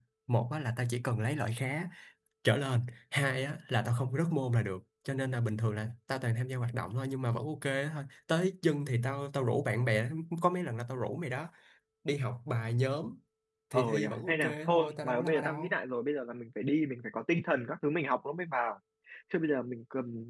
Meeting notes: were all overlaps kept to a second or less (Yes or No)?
No